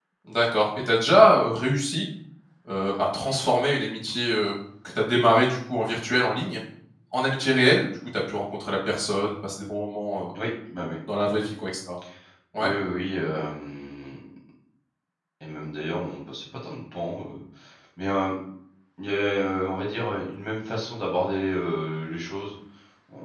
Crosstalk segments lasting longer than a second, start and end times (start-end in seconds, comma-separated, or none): none